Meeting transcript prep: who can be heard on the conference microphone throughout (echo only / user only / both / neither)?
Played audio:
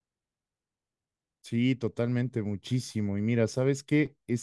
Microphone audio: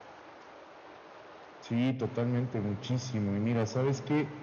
echo only